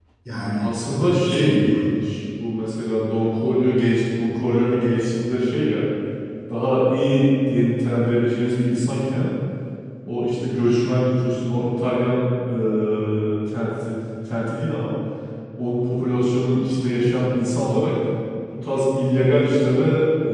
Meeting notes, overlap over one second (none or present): present